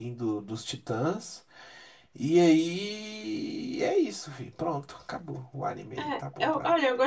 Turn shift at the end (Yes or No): Yes